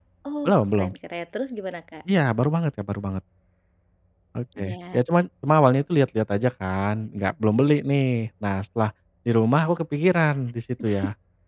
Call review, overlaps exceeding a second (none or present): none